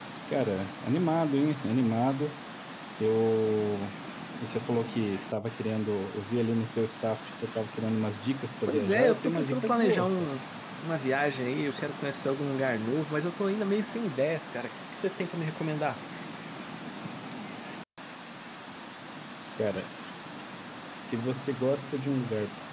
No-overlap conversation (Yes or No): No